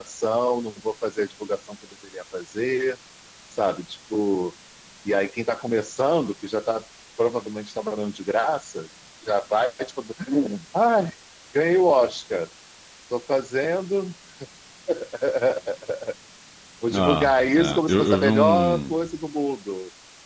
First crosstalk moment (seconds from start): 16.9 s

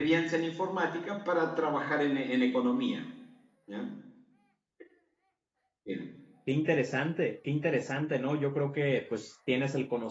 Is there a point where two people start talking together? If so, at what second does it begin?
none

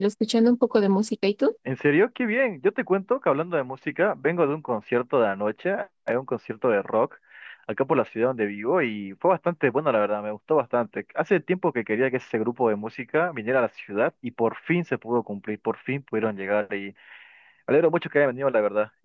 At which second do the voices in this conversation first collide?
none

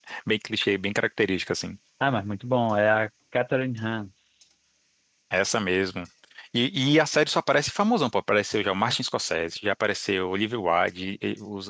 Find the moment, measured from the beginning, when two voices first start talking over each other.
none

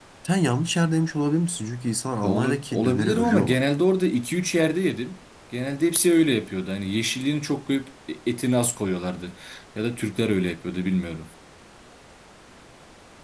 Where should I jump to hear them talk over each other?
2.2 s

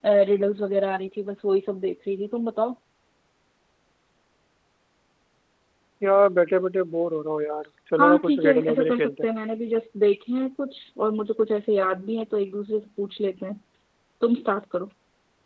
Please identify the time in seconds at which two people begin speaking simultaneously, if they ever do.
8.0 s

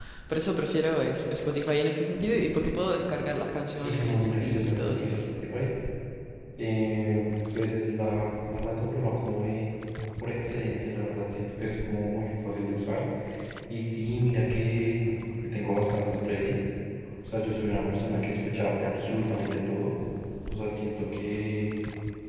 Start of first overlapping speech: 3.8 s

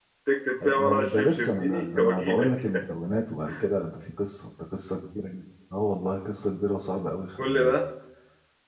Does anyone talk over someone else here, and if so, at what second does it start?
0.7 s

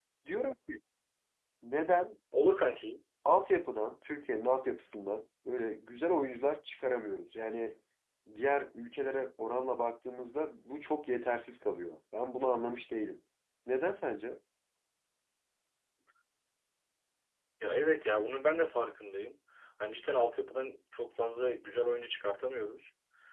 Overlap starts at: none

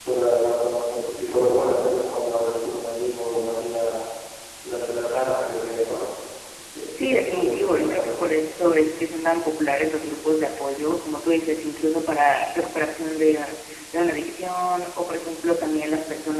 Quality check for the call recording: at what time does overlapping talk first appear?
7.0 s

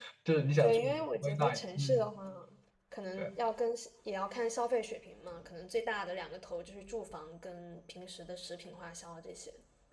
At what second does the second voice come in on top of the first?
0.6 s

